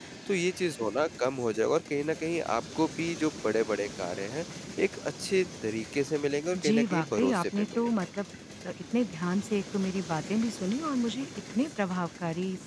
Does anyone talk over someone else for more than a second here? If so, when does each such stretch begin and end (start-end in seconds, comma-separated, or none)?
6.5-7.9